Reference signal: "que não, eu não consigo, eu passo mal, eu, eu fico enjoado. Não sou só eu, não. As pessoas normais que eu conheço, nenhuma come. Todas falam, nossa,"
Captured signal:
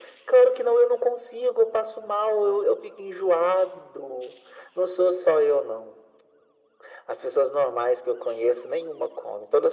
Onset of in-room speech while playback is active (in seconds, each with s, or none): none